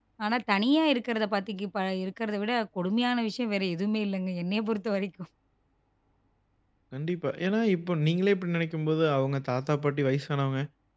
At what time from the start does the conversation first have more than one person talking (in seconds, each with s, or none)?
none